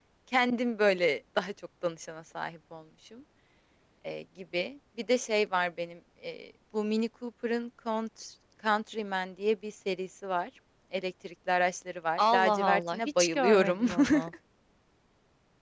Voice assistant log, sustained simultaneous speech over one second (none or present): present